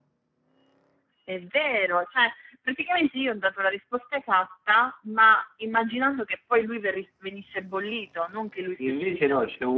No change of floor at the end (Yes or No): No